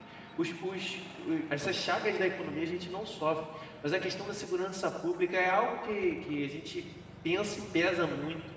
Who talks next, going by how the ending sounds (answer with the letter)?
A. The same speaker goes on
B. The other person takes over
A